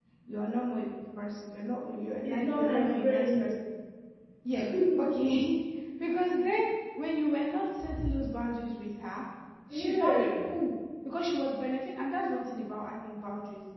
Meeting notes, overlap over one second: present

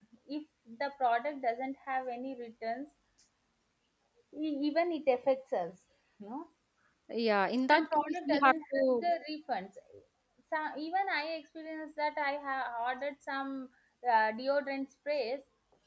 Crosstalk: present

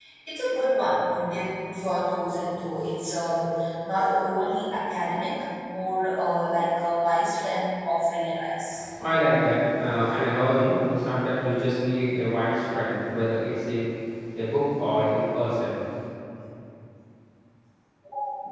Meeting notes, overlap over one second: none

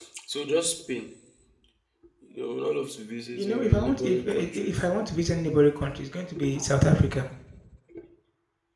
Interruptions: present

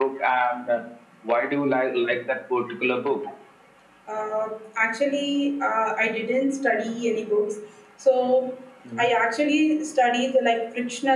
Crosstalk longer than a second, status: none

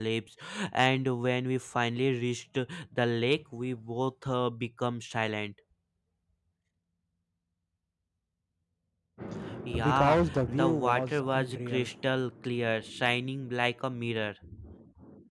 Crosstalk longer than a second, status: present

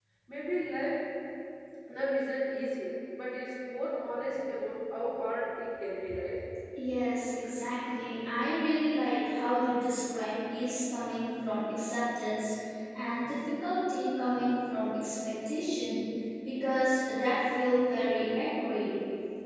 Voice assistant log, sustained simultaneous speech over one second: none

